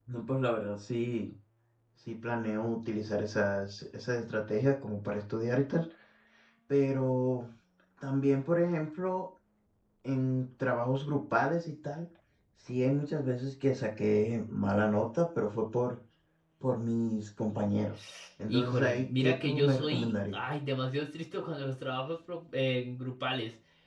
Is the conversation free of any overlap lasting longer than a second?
No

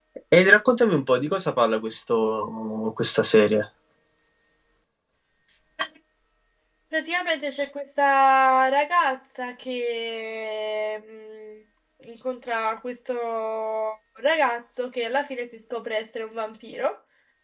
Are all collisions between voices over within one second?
Yes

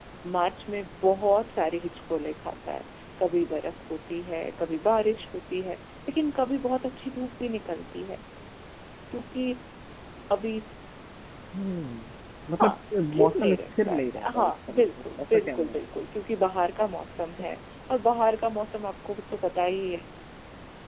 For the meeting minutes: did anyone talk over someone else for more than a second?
Yes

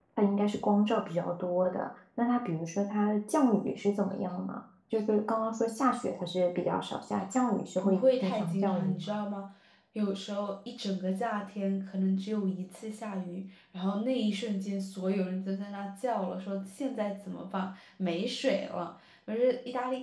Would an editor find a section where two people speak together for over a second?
Yes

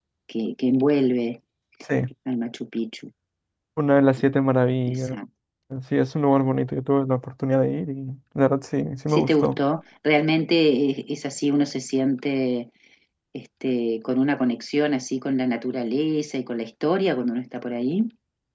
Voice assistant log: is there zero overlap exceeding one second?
Yes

